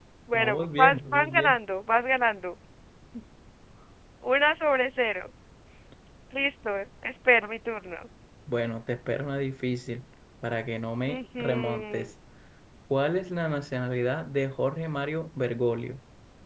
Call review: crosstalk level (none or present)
present